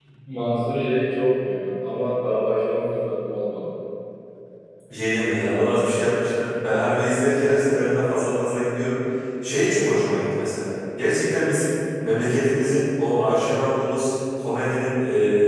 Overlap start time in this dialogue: none

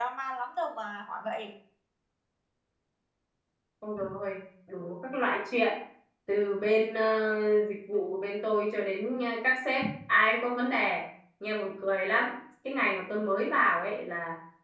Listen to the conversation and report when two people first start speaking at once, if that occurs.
none

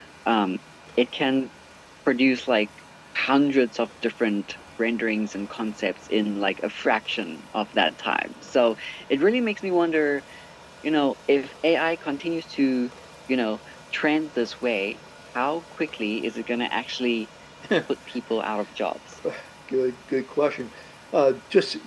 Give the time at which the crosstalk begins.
none

